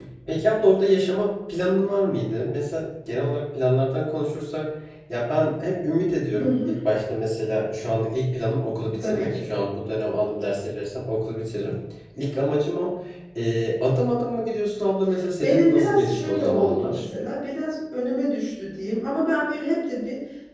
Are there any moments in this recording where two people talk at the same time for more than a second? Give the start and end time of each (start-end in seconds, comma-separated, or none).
15.4-17.0